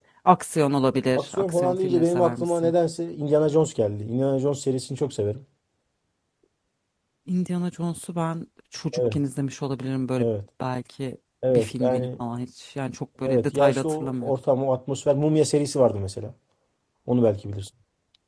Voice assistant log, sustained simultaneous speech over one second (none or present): present